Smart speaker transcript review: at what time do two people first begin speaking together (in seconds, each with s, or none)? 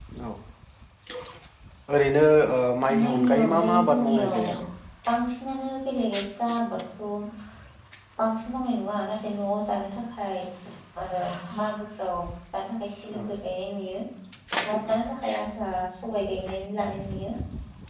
2.9 s